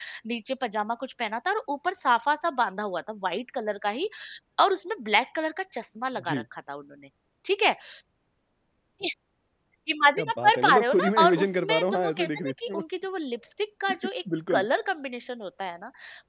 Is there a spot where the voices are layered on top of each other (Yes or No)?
Yes